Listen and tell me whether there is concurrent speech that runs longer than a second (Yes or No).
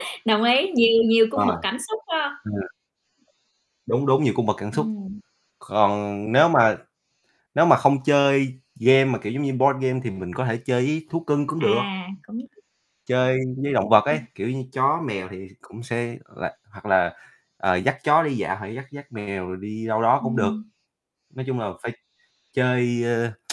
No